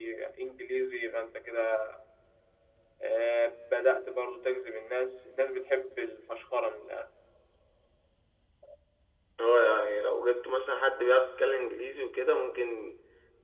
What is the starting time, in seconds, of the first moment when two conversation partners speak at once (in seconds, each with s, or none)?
none